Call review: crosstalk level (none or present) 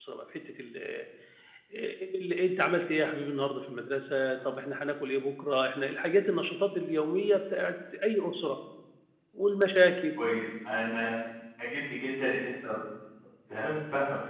none